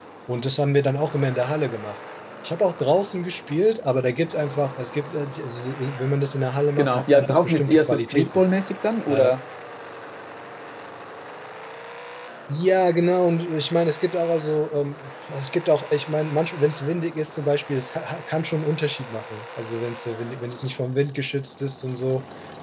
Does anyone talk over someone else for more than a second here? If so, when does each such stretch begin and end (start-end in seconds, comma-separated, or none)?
6.8-8.4